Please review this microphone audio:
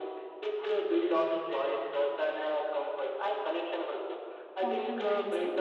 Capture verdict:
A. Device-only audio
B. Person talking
B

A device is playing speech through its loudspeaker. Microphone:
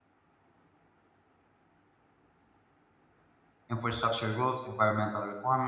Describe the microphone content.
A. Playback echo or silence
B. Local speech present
B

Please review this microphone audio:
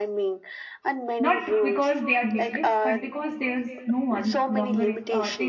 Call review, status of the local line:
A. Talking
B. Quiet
A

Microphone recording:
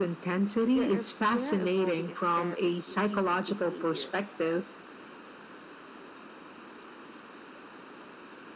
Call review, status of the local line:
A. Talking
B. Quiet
B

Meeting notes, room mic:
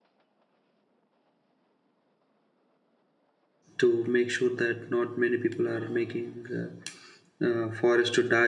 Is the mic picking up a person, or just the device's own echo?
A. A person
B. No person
A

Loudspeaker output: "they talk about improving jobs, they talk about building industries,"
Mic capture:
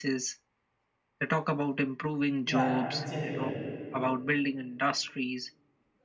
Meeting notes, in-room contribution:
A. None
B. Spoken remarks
B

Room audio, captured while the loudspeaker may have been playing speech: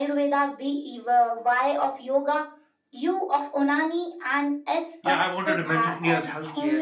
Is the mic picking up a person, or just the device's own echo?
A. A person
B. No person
A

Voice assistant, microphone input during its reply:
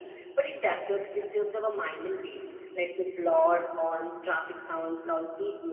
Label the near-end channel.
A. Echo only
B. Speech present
A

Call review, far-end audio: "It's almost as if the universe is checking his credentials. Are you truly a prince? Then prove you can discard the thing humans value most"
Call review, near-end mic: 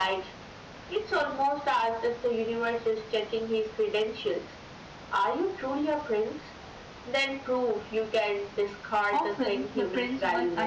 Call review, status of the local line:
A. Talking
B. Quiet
A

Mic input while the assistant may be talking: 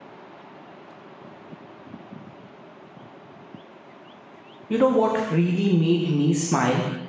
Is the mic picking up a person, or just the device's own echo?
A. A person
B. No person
A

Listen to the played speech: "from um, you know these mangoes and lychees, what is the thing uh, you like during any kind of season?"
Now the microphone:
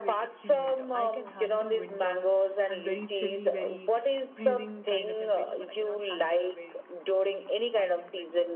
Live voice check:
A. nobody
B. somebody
B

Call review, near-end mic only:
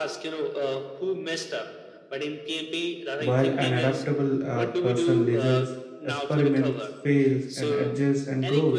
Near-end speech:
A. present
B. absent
A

